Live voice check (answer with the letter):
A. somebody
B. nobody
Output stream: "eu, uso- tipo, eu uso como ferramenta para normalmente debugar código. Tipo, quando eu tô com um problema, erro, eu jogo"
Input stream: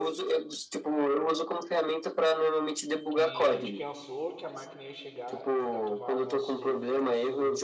A